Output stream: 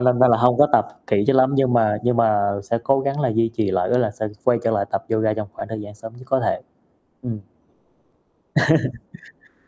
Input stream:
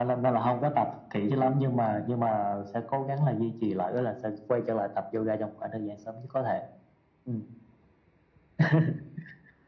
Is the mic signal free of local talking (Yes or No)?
Yes